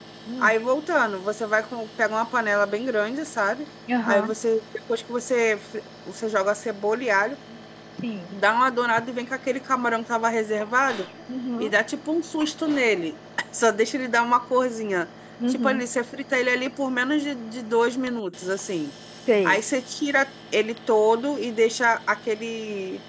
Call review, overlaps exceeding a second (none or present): none